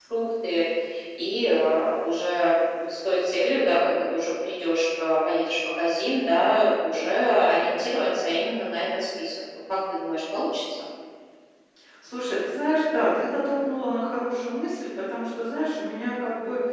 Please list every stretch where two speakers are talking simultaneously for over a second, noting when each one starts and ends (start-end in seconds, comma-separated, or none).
none